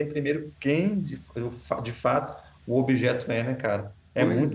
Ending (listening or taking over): taking over